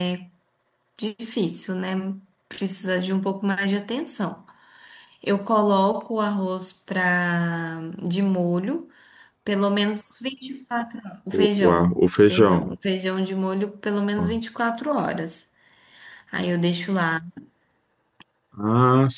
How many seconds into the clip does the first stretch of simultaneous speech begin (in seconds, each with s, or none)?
11.3 s